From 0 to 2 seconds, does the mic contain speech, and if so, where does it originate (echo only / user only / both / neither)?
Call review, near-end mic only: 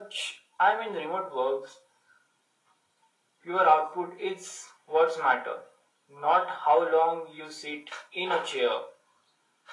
echo only